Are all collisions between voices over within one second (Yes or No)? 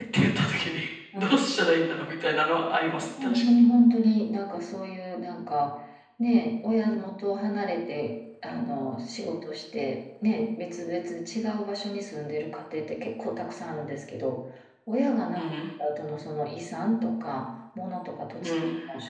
Yes